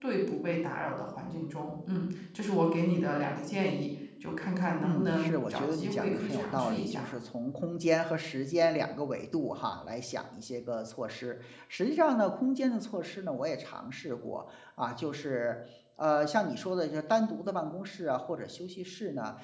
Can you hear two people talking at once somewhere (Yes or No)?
Yes